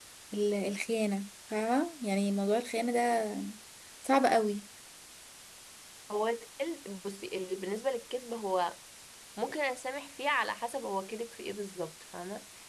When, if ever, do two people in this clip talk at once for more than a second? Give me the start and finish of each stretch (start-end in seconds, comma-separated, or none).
none